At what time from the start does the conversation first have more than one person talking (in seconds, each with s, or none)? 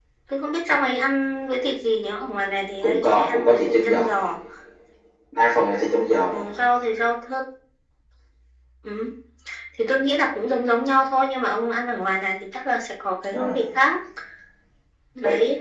2.8 s